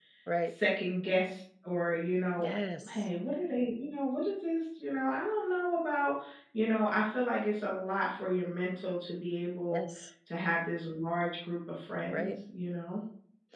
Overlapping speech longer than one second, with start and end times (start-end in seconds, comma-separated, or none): none